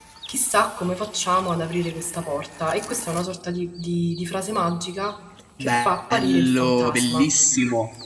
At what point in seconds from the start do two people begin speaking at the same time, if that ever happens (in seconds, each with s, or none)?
5.6 s